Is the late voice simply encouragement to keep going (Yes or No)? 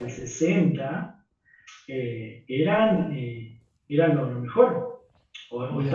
Yes